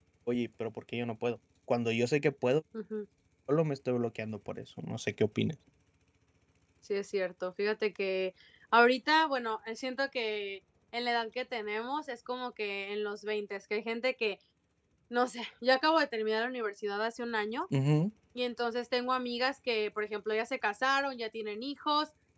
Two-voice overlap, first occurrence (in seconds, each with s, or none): none